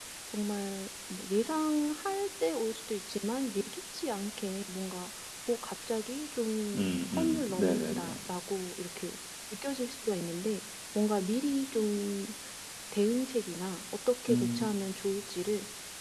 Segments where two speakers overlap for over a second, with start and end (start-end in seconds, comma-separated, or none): 6.8-8.1